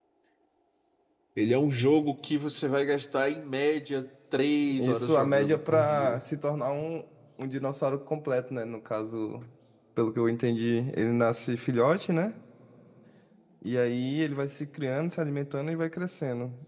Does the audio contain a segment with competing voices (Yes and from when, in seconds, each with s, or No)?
Yes, from 4.8 s